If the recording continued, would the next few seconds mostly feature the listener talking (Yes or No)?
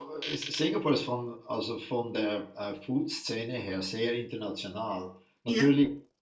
No